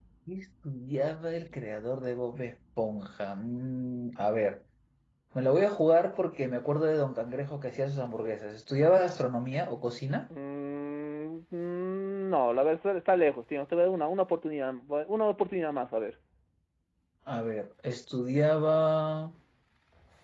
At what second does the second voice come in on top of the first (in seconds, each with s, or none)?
none